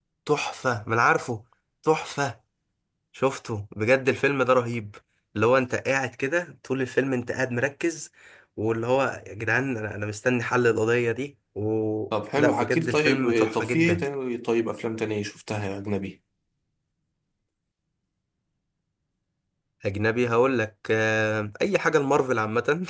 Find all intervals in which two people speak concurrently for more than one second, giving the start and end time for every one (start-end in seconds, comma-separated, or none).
12.3-14.0